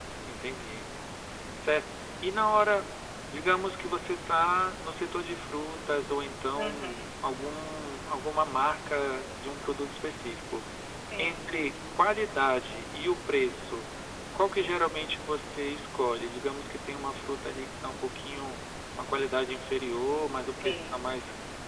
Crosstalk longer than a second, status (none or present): none